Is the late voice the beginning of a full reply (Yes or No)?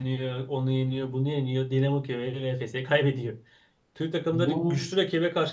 No